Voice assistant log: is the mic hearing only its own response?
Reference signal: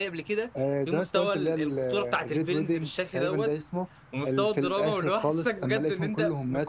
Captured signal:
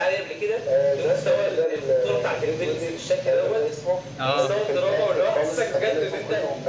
No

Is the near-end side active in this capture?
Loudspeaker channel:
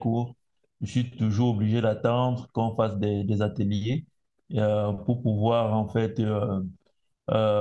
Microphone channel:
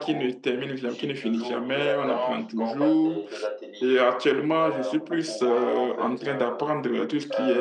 Yes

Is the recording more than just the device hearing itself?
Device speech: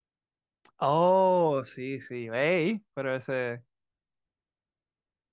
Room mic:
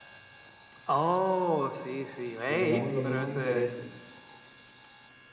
Yes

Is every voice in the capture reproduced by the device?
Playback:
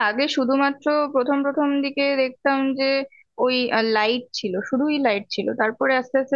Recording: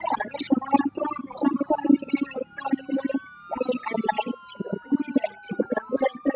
Yes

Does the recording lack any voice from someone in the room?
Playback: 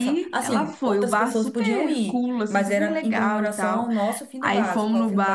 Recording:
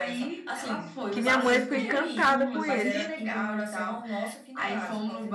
No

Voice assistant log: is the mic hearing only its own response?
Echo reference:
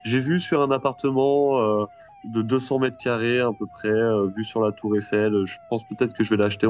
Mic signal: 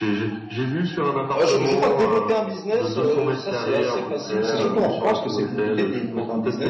No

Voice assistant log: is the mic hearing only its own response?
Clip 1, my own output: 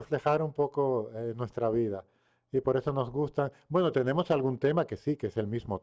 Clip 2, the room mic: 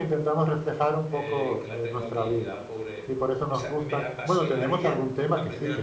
No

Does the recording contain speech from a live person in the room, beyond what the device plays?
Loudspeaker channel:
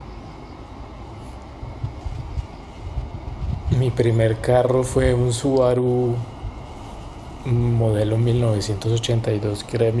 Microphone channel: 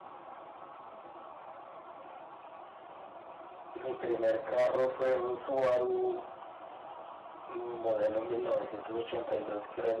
No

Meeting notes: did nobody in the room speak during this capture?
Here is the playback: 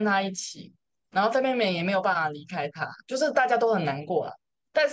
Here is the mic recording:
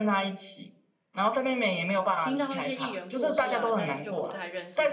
No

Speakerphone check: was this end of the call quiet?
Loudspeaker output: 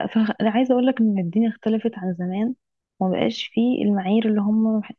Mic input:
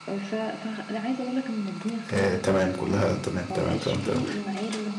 No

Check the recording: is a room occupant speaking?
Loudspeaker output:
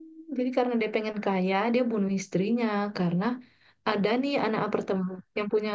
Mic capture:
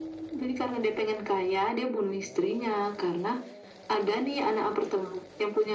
No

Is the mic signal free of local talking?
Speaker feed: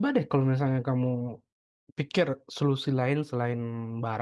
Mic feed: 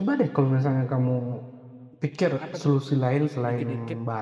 No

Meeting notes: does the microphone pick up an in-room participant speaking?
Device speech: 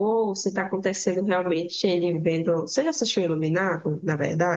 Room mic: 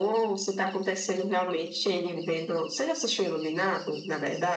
No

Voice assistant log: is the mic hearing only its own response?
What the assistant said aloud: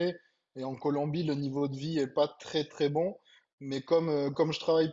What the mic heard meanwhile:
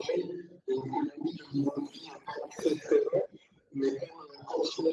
Yes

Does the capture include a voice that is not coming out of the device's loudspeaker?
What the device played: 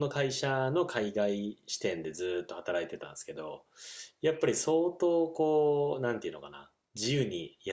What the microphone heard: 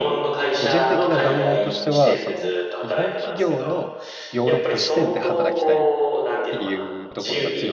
Yes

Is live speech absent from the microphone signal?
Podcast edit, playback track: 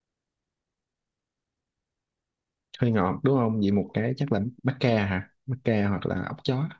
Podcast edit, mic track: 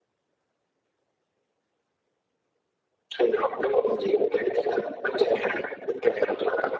Yes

